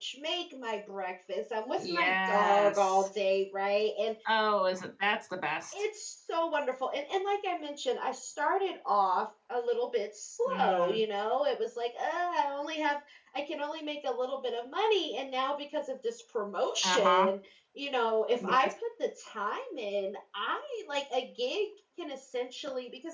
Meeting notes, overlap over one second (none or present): present